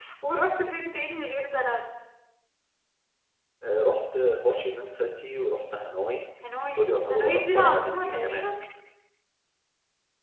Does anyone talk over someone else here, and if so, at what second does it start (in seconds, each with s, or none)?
6.7 s